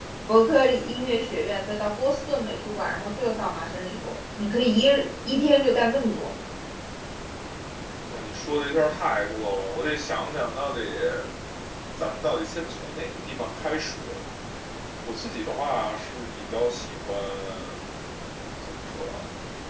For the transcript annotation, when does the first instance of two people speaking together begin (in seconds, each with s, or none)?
none